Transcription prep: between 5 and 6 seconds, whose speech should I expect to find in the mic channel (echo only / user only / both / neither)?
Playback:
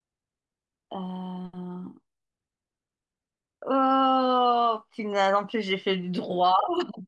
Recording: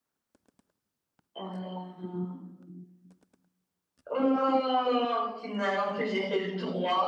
echo only